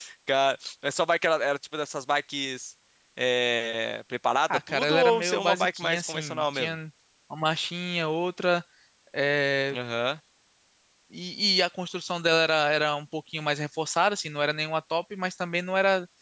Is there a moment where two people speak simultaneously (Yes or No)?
Yes